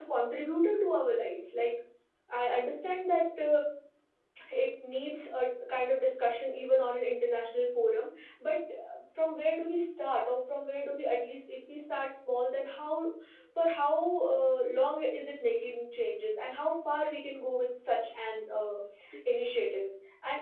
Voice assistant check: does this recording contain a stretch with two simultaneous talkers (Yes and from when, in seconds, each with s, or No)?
No